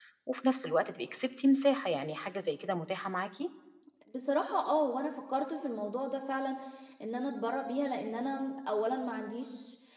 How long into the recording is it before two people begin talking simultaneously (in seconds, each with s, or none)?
none